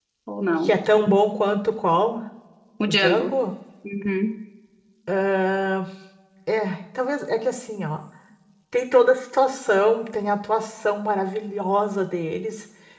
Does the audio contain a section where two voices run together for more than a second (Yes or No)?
No